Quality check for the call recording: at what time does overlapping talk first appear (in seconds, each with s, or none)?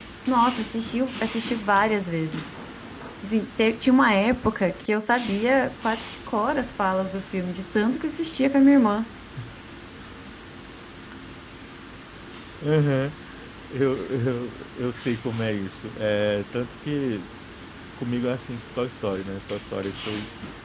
none